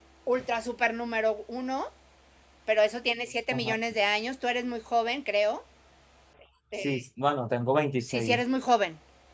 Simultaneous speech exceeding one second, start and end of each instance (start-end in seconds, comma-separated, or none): none